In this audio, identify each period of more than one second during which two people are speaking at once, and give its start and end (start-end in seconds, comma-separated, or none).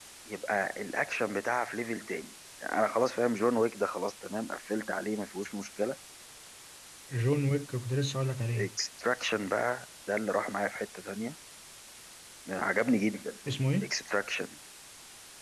none